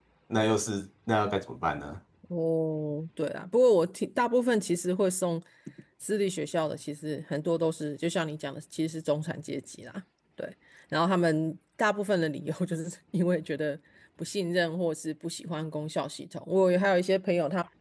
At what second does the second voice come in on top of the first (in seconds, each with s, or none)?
none